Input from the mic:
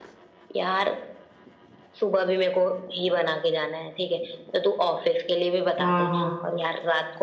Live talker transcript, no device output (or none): हाँ हाँ